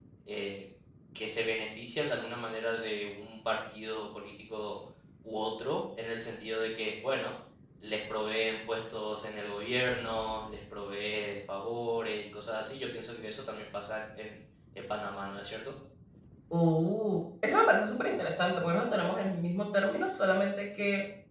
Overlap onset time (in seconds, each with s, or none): none